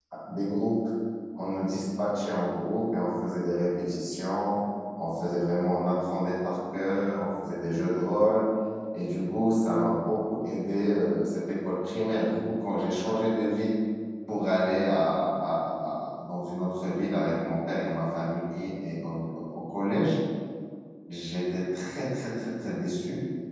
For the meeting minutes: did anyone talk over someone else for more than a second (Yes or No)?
No